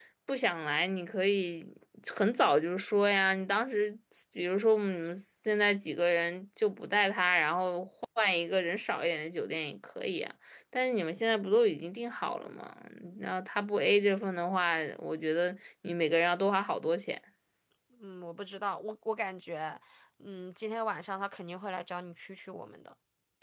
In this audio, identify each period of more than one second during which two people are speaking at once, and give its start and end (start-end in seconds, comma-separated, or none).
none